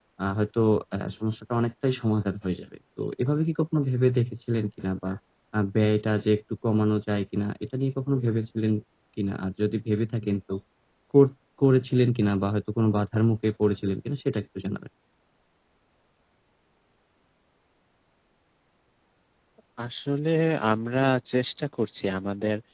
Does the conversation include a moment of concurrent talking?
No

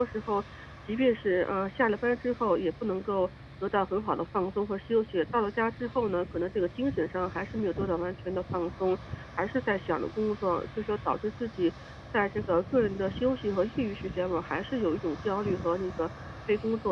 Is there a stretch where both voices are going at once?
No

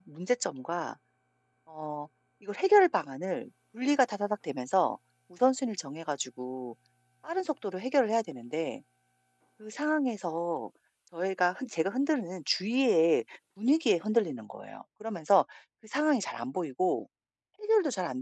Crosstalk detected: No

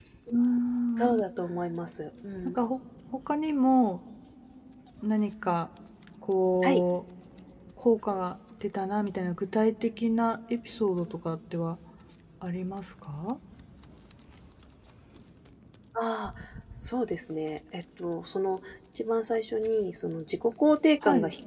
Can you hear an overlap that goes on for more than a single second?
No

